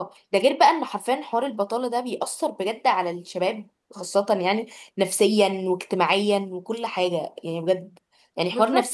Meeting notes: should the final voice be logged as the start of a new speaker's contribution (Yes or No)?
No